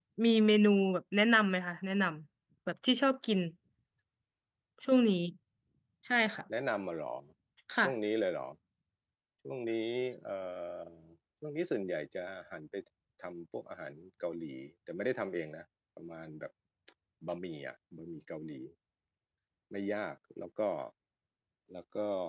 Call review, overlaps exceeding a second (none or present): none